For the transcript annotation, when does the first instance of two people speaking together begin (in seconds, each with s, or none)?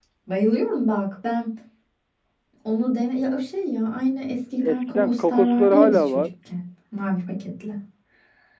4.6 s